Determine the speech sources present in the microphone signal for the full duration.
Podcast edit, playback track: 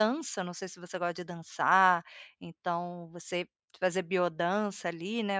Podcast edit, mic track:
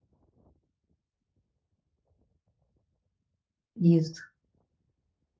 user only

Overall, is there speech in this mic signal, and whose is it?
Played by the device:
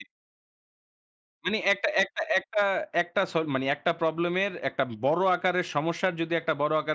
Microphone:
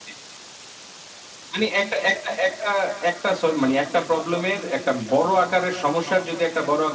echo only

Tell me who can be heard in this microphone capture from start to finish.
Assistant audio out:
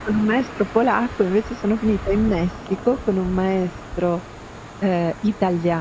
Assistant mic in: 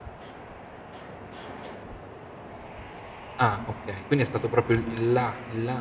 user only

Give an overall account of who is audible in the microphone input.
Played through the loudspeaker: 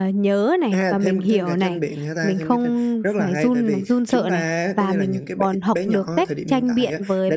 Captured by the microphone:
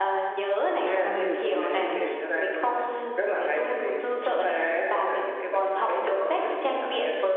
both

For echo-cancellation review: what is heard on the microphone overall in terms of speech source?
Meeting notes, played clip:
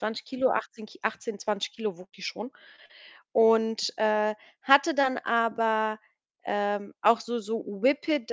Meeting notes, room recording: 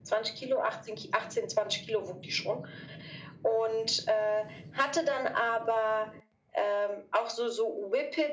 echo only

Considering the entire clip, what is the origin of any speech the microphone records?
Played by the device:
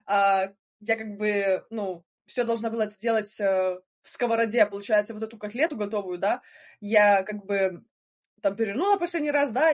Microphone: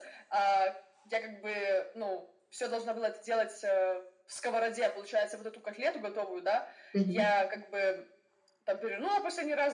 both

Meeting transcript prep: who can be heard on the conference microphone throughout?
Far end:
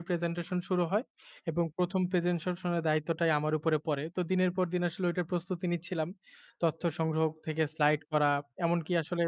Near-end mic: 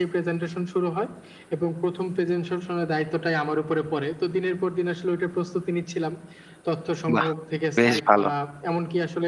both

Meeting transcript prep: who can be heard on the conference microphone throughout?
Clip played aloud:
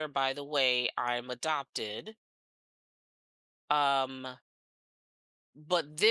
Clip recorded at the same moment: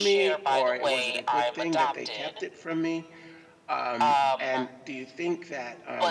both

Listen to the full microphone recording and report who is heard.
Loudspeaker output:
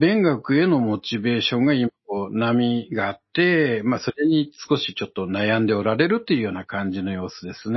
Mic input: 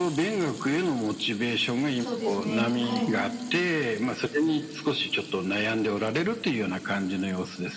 both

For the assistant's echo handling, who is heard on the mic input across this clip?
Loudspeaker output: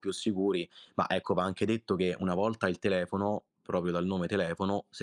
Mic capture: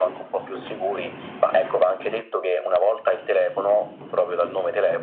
echo only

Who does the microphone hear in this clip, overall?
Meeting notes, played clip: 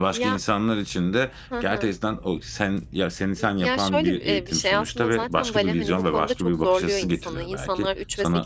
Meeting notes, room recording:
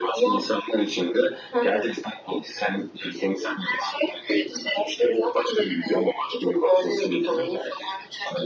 echo only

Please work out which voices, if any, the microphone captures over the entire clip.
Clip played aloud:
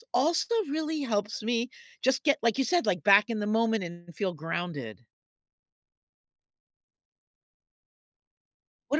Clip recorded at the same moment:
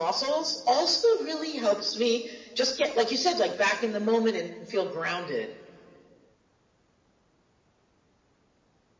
echo only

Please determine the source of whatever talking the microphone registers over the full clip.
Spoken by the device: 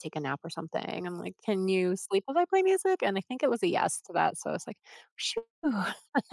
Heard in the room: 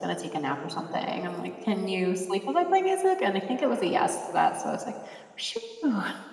both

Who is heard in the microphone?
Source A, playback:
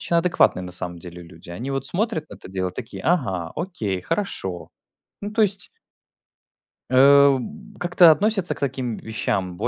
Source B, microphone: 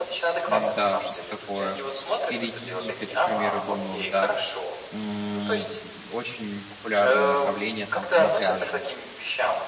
both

